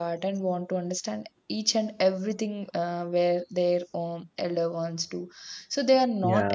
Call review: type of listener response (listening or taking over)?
listening